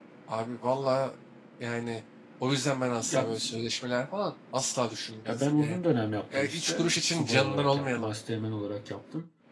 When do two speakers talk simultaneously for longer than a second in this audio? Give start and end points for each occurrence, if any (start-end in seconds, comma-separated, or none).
6.3-8.1